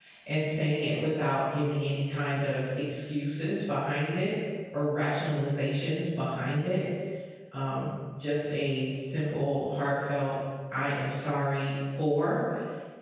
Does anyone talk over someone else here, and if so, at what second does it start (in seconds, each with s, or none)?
none